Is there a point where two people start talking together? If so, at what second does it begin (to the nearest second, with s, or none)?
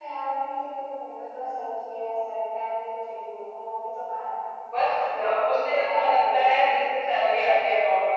5 s